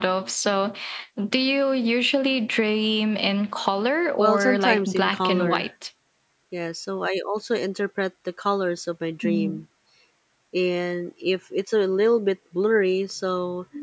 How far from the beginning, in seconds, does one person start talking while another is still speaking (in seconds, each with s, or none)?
4.2 s